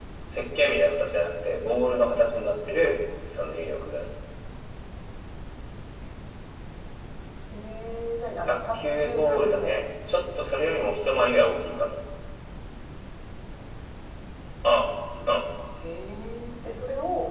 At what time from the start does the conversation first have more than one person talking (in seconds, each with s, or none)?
8.5 s